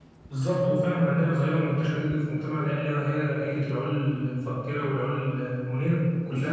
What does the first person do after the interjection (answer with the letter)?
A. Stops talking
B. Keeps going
A